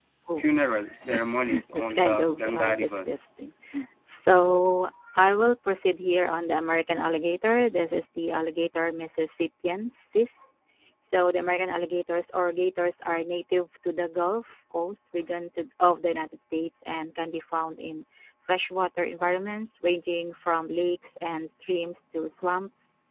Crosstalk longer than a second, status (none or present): present